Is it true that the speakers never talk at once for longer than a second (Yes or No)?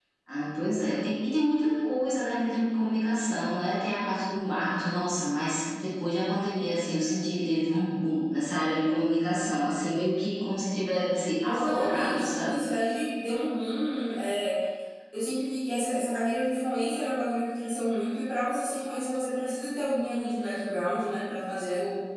No